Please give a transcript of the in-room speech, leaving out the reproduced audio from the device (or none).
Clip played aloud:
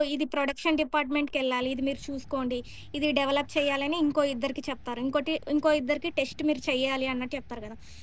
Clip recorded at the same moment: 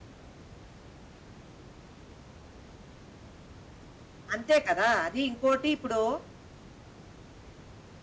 అంతే కదా! అది ఇంకోటి ఇప్పుడు